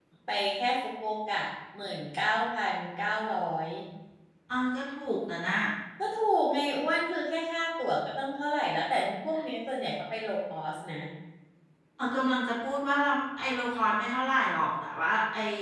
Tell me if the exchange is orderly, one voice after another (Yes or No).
Yes